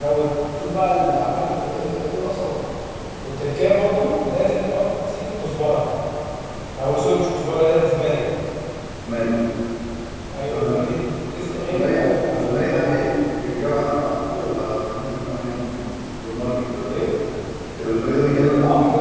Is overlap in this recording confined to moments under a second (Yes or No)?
No